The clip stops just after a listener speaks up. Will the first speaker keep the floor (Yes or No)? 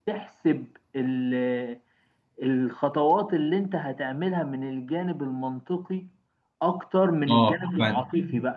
Yes